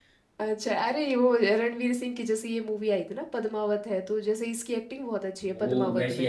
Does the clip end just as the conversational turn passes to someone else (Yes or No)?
Yes